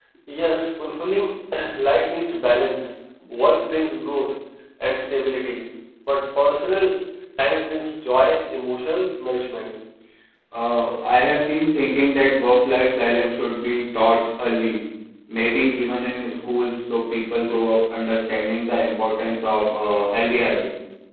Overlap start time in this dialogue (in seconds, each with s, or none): none